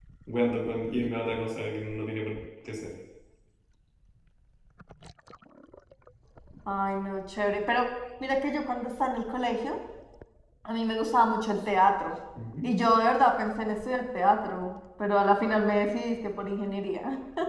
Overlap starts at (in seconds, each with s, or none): none